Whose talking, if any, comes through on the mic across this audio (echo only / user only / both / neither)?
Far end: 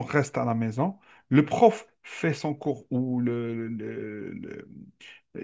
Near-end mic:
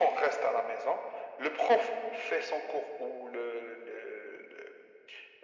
echo only